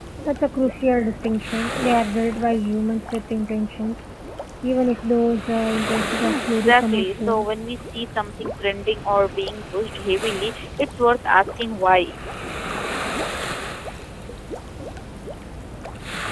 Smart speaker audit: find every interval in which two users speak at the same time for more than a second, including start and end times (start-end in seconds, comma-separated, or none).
6.2-7.5